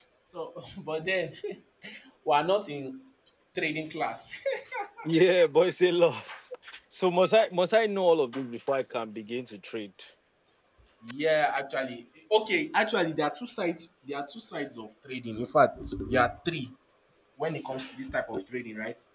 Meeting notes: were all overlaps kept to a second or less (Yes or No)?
Yes